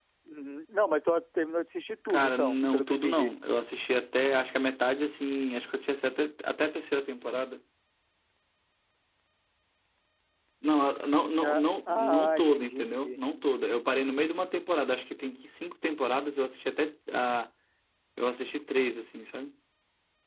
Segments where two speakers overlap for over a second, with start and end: 2.1-3.3, 11.4-13.2

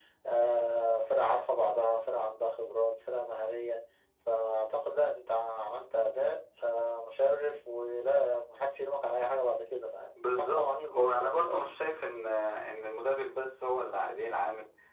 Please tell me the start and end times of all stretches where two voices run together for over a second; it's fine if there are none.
10.3-11.6

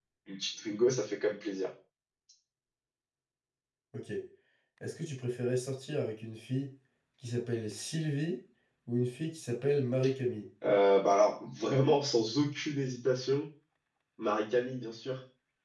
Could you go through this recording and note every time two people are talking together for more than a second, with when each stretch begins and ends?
none

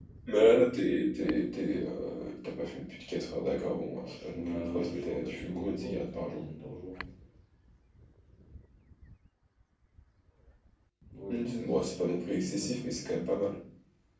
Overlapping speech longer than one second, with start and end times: 4.0-6.4, 11.3-13.2

